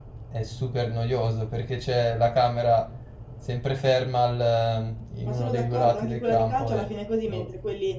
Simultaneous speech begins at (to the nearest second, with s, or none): 5 s